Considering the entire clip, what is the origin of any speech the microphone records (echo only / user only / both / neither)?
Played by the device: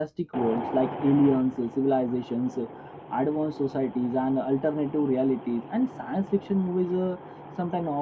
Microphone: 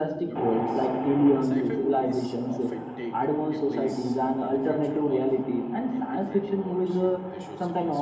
both